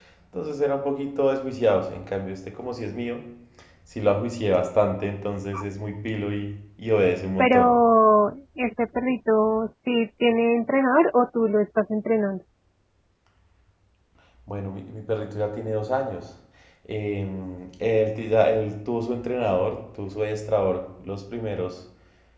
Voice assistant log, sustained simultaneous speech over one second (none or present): none